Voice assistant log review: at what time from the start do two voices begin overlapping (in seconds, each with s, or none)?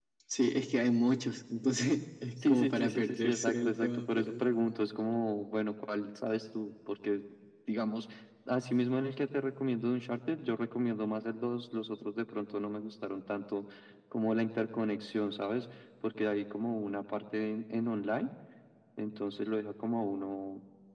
2.4 s